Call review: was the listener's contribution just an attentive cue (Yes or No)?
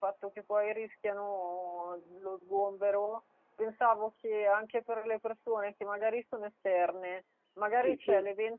Yes